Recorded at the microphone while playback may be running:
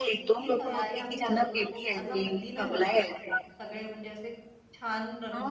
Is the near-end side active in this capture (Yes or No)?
Yes